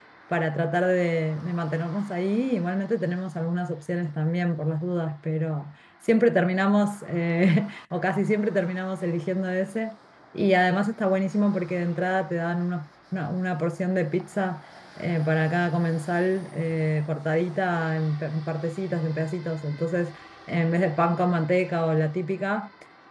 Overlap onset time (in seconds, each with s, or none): none